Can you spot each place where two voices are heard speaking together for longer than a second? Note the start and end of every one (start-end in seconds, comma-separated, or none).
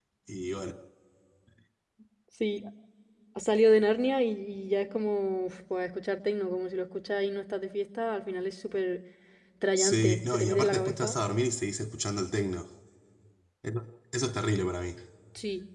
9.8-11.2